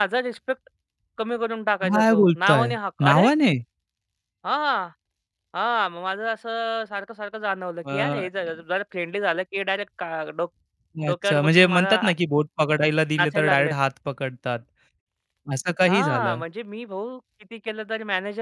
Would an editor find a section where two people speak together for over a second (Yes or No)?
Yes